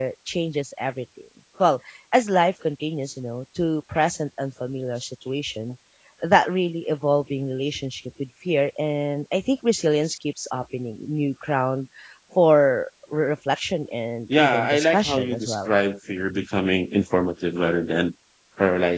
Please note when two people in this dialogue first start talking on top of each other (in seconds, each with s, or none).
14.3 s